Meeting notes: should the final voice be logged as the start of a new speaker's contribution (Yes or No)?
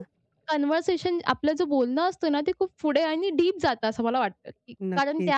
No